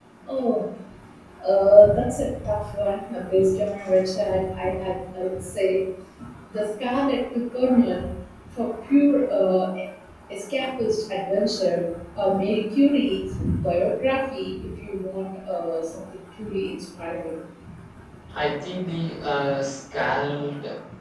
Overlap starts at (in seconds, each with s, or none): none